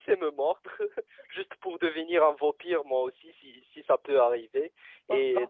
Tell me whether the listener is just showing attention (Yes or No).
Yes